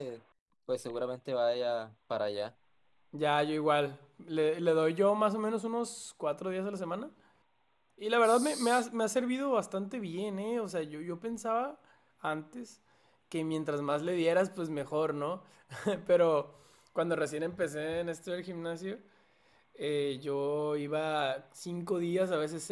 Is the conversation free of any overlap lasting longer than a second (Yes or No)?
Yes